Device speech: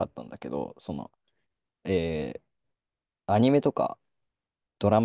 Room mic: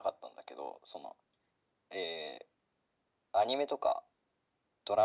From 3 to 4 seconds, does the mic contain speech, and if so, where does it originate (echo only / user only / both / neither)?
echo only